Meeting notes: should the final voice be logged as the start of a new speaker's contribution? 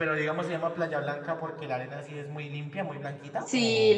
Yes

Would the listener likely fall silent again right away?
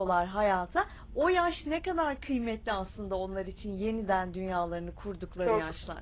No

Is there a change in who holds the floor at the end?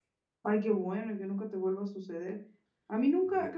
No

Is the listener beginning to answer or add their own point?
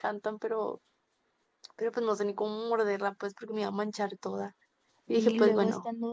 Yes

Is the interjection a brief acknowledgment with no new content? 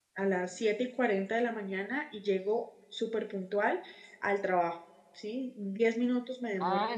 No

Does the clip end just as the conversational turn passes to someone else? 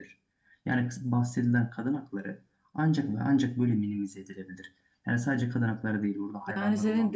Yes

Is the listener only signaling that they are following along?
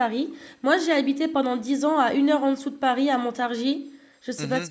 No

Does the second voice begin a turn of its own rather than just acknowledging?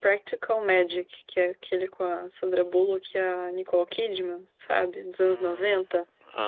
Yes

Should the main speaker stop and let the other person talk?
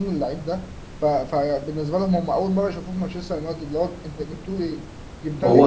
No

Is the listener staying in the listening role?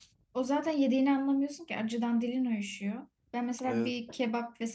Yes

